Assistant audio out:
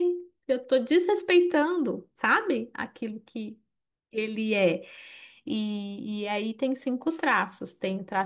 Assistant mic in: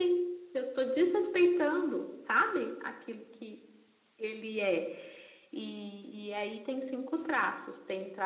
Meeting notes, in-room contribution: none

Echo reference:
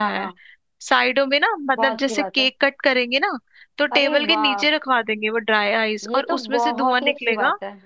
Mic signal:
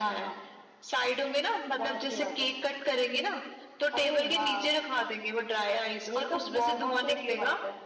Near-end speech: none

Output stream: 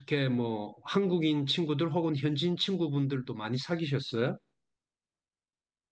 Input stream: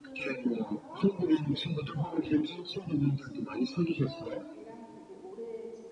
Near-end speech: present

